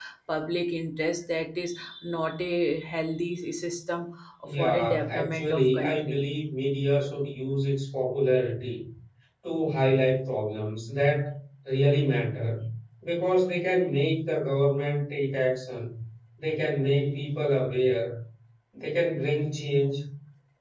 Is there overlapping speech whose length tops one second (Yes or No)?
Yes